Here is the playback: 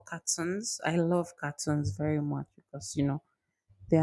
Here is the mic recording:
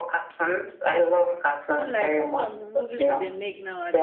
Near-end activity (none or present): present